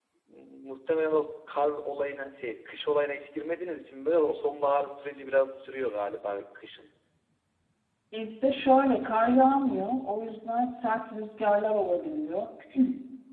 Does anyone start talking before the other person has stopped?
No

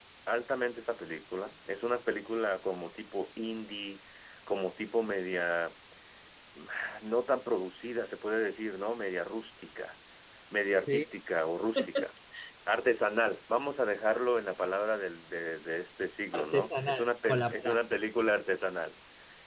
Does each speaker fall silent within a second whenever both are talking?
No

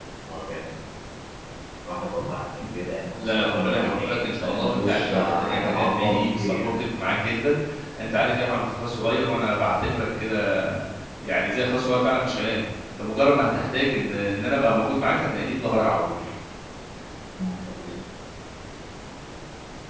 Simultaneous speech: Yes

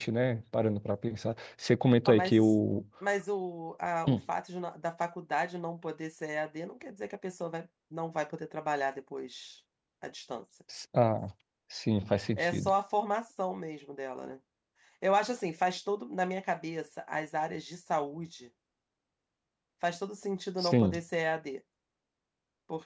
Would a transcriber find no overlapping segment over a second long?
Yes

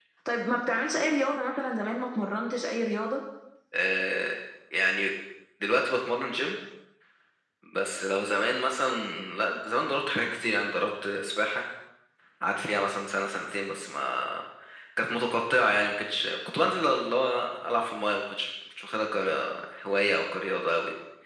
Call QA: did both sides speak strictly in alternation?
Yes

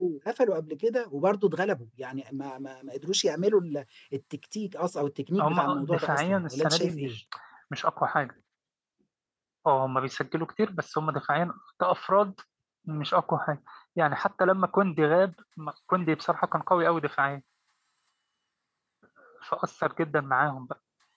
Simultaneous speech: Yes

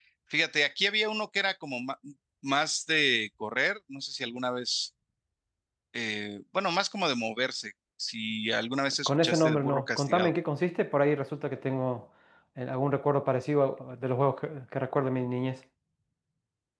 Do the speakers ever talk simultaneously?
Yes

